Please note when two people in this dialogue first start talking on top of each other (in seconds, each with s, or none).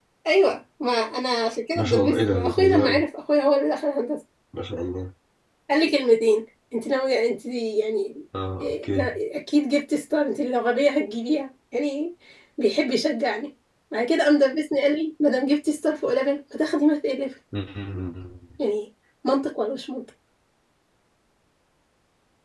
1.8 s